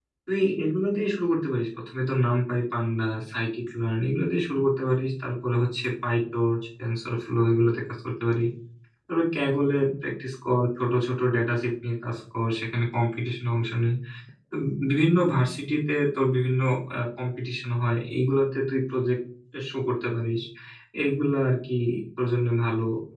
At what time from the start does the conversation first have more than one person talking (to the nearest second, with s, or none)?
none